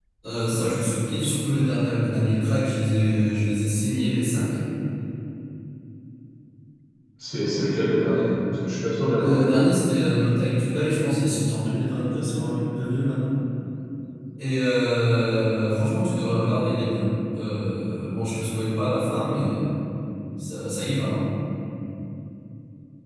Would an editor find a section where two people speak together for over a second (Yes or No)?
No